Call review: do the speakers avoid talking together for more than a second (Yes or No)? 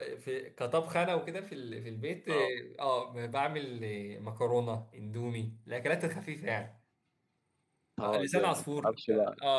No